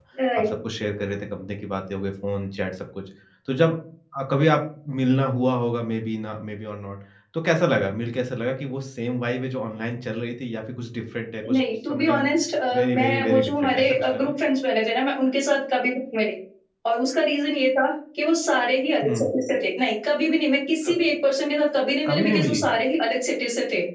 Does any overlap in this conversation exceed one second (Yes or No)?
Yes